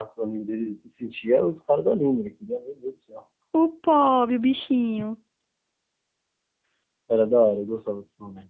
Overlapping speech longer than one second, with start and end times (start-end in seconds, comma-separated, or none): none